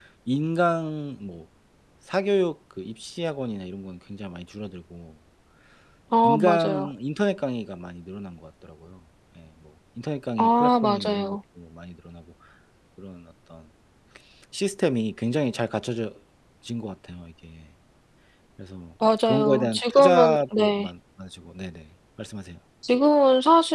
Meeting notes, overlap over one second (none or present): present